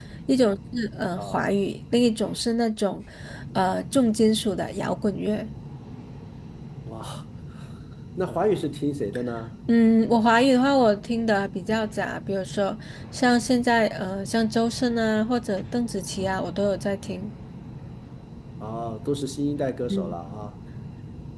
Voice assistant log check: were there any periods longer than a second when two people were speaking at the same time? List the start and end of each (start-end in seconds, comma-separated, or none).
none